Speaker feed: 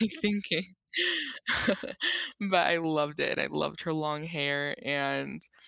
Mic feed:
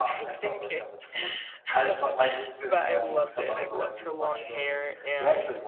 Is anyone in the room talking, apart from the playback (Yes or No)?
Yes